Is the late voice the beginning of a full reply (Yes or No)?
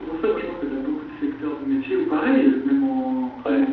No